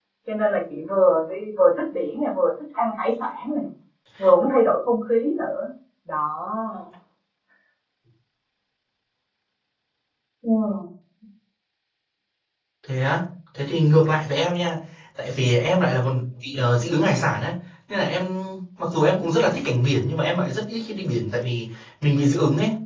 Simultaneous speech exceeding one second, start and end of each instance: none

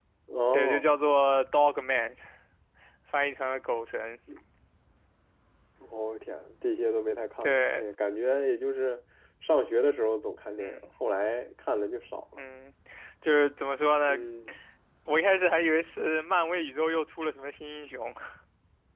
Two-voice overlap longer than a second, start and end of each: none

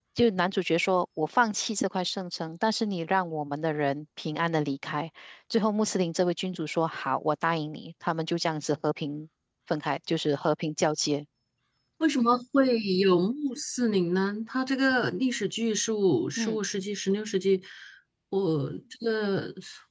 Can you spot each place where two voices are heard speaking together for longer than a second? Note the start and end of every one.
none

